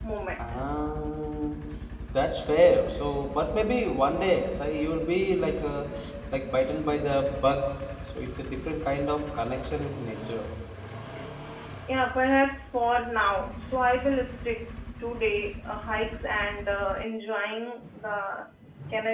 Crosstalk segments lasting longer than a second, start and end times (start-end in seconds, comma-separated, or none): none